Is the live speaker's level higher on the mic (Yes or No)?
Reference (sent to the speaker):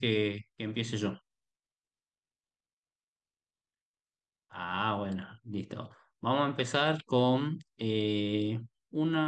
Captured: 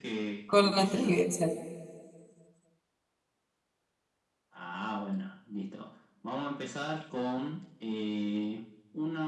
Yes